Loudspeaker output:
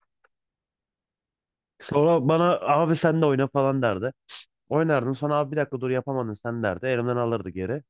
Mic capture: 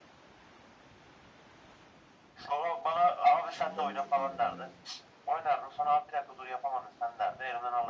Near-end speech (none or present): present